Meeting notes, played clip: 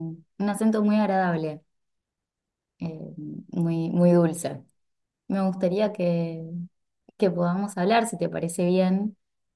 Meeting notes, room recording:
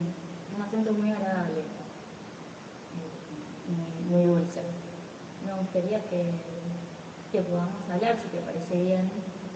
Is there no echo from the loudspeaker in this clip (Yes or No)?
No